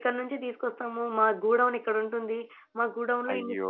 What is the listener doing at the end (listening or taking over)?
listening